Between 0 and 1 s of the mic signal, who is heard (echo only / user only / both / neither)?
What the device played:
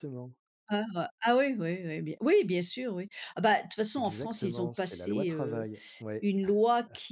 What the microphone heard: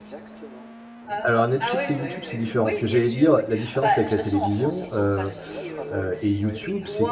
echo only